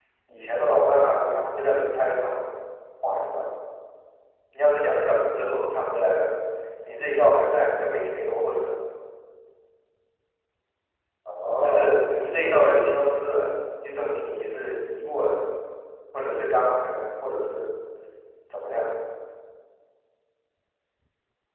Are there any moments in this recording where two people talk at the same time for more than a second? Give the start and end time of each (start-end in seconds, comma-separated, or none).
11.6-12.9